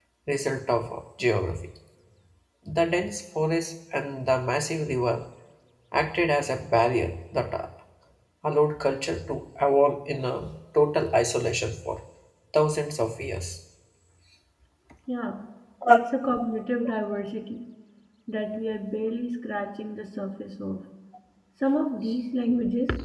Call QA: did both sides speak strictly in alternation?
Yes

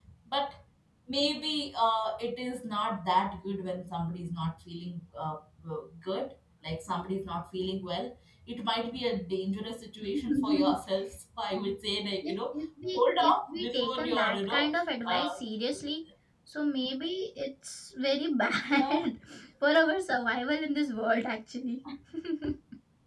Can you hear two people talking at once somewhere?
Yes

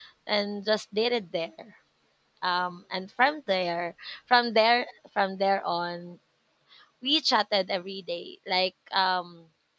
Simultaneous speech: No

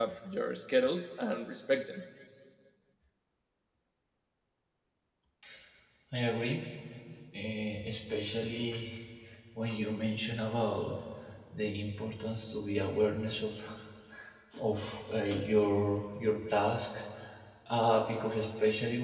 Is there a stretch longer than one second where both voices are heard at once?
No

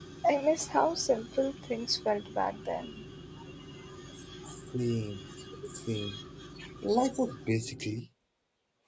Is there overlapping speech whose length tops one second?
No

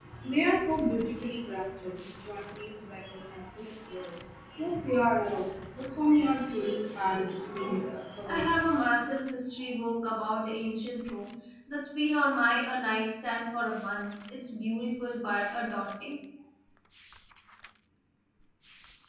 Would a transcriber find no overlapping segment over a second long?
Yes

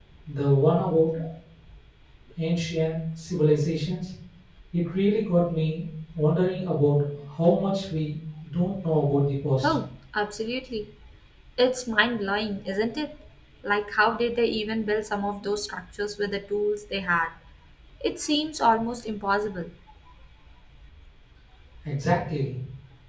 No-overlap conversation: Yes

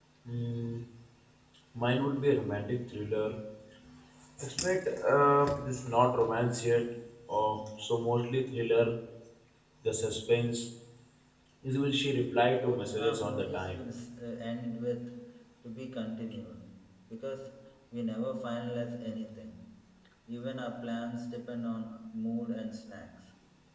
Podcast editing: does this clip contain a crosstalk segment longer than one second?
Yes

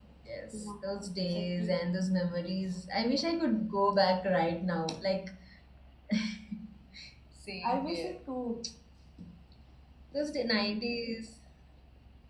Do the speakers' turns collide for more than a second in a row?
Yes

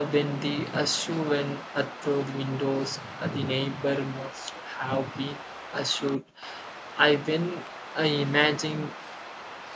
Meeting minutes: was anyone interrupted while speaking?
No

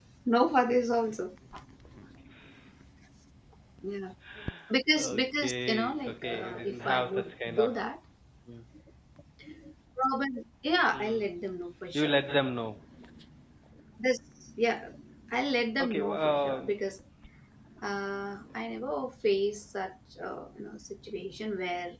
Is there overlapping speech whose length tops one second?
Yes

